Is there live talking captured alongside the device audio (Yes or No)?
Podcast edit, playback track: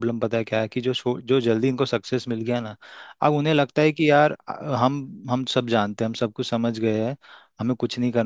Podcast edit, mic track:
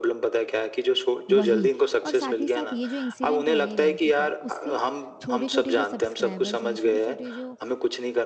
Yes